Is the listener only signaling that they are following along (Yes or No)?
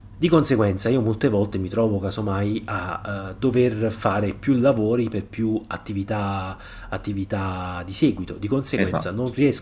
Yes